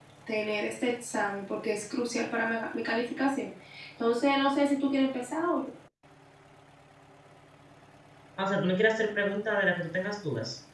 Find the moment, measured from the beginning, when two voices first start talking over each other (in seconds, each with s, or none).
none